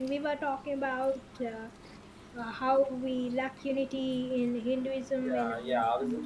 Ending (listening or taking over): taking over